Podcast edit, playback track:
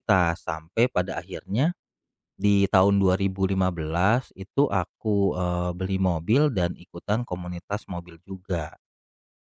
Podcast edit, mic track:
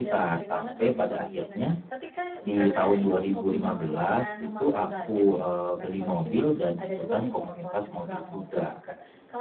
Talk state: both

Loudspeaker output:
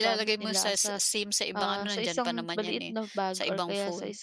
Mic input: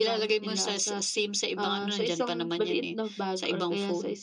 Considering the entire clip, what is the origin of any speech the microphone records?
echo only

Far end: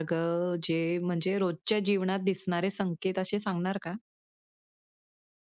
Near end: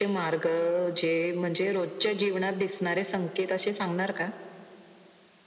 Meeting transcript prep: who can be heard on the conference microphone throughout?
echo only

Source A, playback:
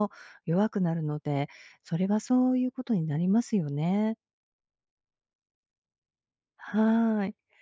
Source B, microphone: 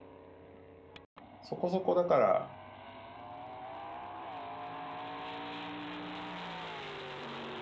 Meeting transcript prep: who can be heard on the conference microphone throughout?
user only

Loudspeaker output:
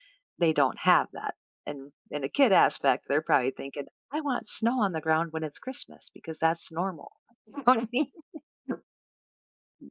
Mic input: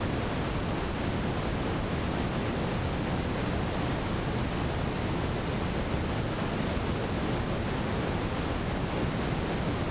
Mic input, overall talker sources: neither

